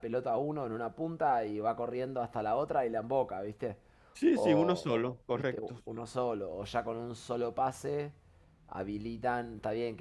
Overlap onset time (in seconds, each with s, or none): 4.3 s